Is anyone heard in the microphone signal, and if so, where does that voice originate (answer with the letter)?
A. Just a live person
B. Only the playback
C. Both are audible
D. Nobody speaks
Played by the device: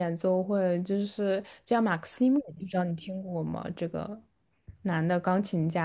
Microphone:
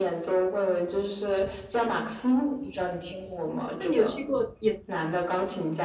C